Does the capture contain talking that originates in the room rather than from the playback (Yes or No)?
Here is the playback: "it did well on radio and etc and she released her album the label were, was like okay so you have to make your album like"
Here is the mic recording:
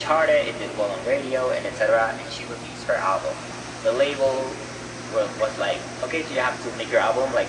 No